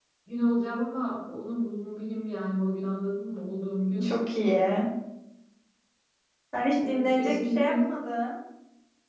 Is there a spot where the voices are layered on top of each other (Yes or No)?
Yes